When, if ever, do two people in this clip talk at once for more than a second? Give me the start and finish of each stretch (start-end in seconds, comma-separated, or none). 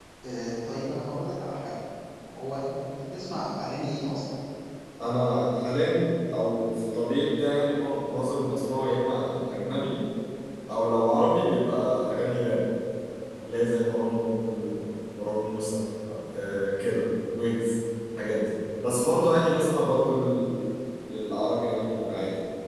none